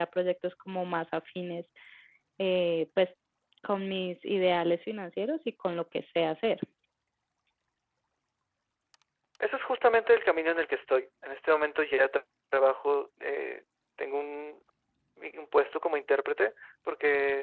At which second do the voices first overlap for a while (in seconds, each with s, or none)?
none